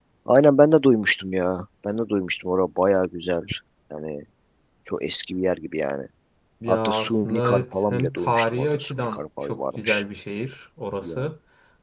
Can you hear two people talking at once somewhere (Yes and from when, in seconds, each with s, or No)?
Yes, from 6.7 s